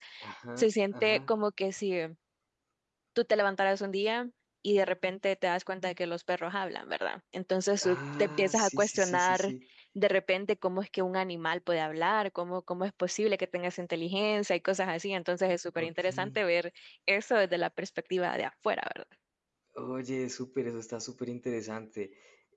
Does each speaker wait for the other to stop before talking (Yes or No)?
No